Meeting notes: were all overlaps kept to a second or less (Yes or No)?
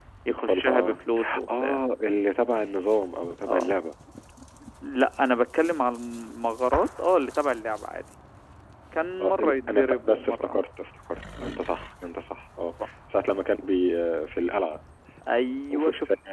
No